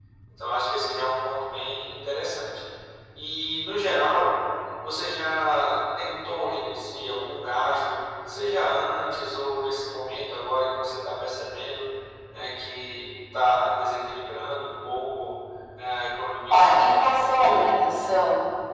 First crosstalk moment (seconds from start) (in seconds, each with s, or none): 16.5 s